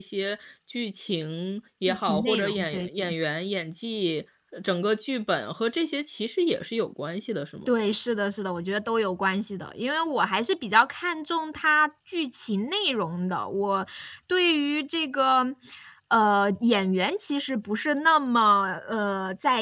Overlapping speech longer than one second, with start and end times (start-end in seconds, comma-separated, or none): 1.9-3.1